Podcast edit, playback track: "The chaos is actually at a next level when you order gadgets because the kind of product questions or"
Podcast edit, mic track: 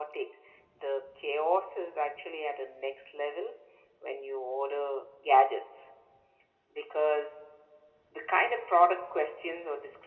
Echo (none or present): present